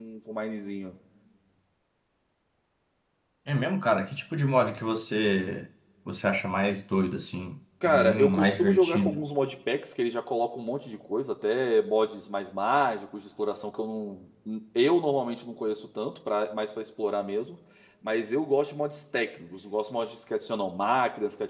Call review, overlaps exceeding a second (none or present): present